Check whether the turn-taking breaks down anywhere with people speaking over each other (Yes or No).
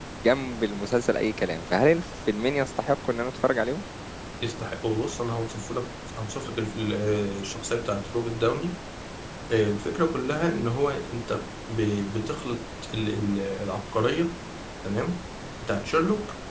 No